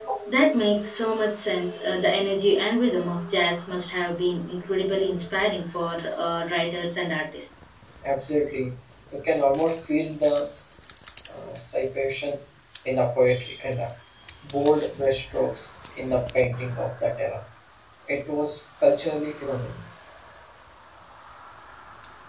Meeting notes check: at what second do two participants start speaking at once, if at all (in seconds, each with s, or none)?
none